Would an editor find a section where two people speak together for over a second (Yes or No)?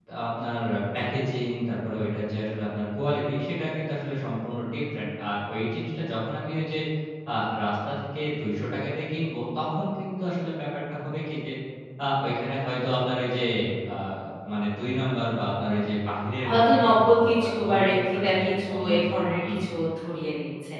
Yes